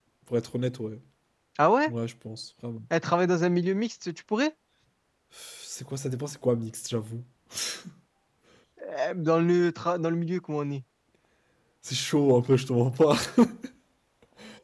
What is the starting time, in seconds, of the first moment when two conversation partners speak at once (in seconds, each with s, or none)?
none